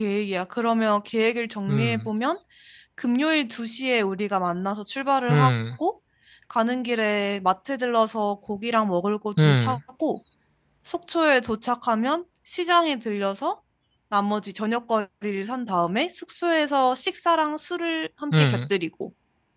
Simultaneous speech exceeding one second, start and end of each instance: none

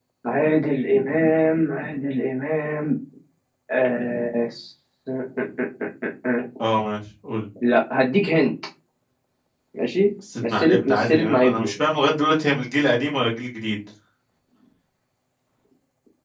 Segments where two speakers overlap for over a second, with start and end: 10.4-11.7

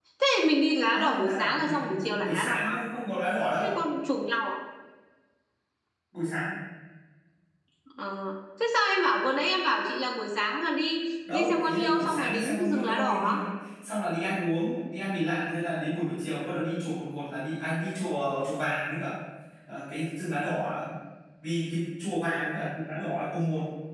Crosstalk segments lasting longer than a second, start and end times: 0.9-2.8, 11.3-13.4

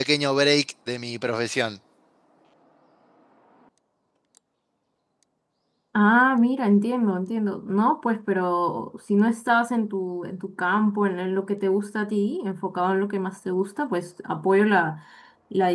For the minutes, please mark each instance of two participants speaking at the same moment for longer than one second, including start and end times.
none

